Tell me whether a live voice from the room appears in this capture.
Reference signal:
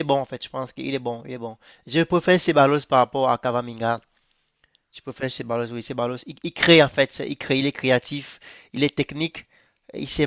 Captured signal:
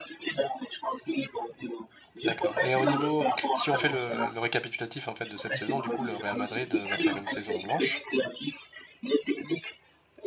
Yes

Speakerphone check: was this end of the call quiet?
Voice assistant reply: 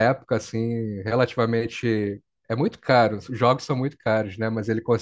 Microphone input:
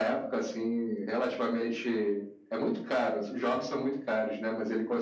Yes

